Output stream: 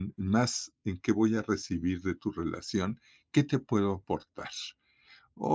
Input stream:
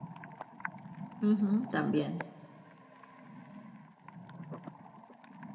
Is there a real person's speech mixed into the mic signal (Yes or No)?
Yes